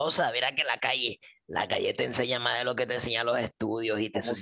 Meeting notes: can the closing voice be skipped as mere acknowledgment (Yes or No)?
No